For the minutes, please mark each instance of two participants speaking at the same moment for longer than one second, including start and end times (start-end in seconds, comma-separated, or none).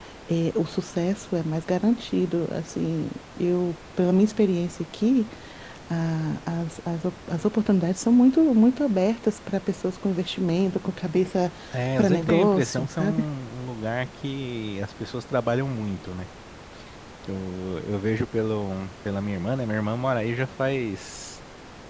12.0-13.2